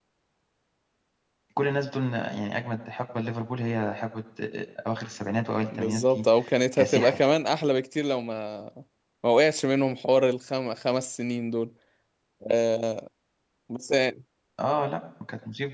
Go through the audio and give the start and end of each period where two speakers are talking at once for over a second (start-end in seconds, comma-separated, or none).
none